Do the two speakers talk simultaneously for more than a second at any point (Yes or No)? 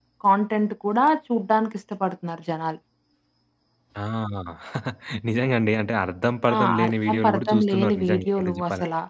Yes